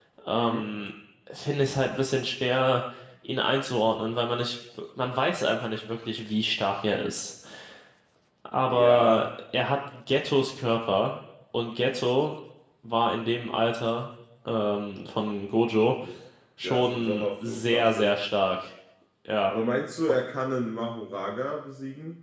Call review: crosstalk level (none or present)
present